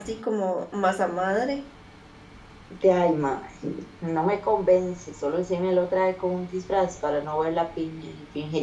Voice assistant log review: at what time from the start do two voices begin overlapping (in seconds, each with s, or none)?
none